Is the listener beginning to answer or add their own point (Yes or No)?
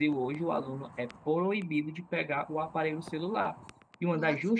No